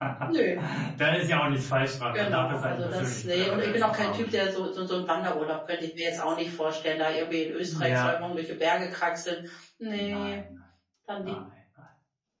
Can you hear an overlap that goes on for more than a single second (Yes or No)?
Yes